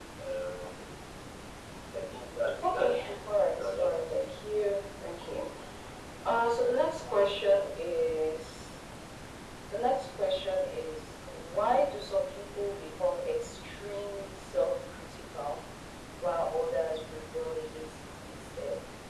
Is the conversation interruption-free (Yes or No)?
No